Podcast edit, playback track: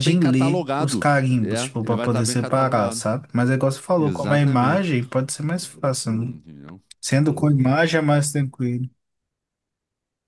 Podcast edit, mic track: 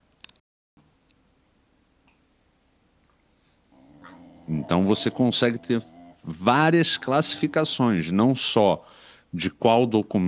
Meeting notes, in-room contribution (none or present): present